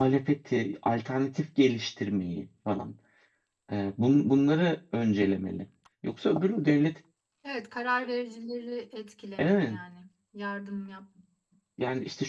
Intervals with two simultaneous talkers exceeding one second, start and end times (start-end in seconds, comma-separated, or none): none